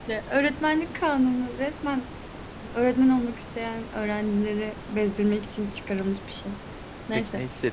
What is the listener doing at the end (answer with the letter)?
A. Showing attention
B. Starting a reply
B